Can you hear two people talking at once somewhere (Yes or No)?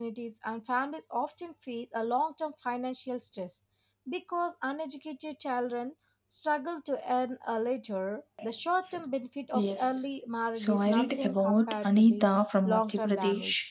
Yes